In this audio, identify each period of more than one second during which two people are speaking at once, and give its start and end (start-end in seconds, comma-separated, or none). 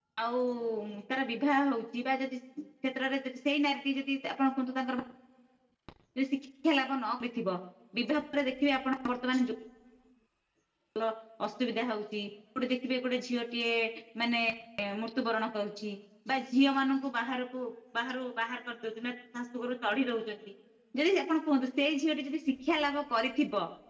none